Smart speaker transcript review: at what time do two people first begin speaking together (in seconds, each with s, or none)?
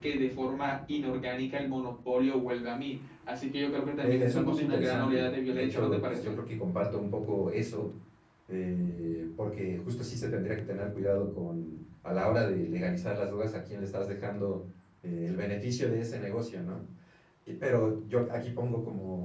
4.0 s